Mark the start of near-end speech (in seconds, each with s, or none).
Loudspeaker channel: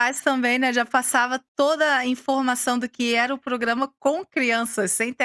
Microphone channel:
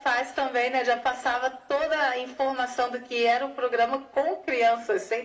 none